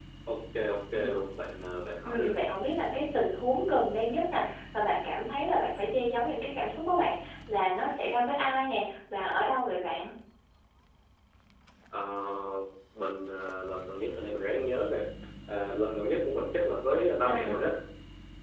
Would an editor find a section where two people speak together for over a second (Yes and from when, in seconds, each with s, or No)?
No